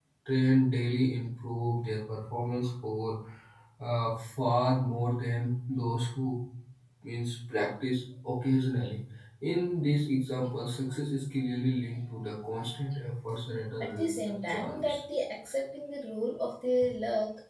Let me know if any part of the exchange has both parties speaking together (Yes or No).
Yes